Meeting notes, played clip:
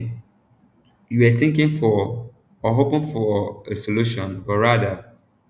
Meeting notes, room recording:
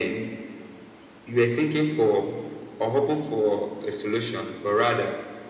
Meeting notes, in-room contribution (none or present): none